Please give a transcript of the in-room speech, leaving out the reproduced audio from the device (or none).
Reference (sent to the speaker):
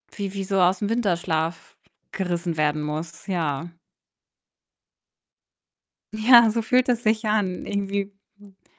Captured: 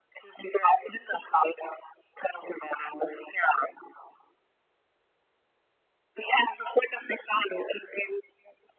none